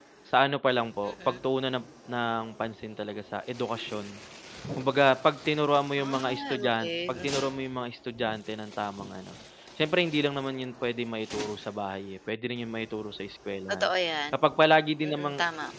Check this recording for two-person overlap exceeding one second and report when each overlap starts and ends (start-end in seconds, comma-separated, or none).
6.0-7.5